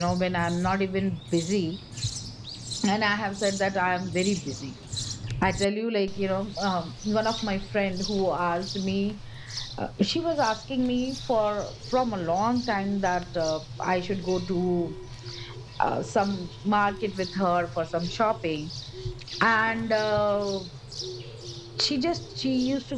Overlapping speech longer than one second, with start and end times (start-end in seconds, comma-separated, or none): none